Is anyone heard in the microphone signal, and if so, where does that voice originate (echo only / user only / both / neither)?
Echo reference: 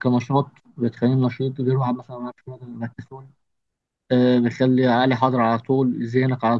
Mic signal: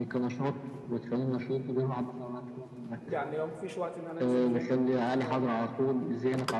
both